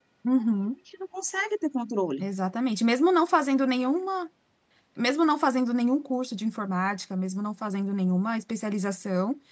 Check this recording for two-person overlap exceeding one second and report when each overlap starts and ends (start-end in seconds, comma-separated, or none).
none